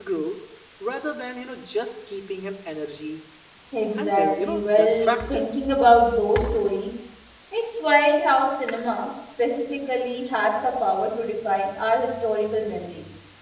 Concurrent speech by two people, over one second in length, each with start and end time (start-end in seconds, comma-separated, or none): 4.0-5.5